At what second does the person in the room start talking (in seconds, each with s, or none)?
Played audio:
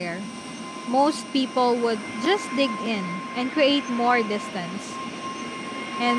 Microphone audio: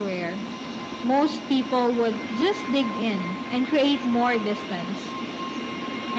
none